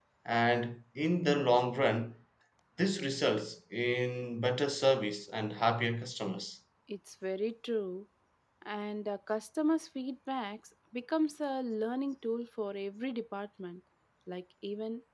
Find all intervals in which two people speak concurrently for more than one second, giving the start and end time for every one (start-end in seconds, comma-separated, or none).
none